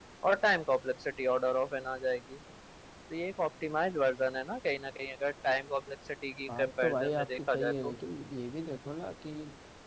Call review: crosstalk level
present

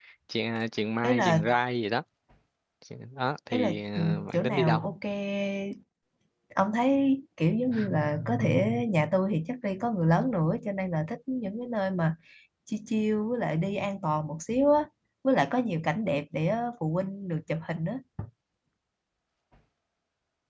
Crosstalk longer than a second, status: present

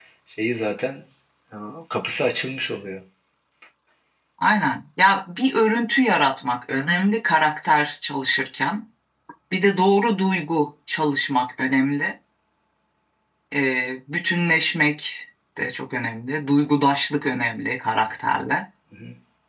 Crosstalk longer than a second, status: none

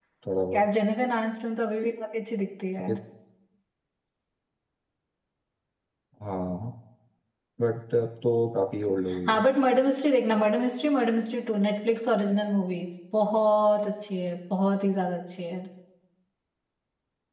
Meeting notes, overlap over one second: none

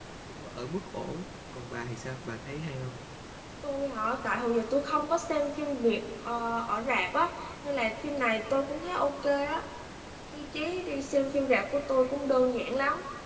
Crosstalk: none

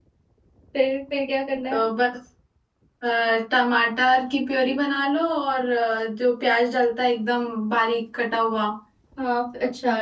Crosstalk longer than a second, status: none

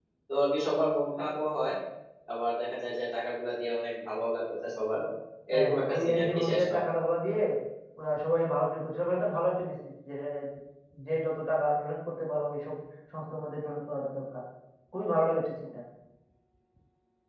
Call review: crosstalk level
present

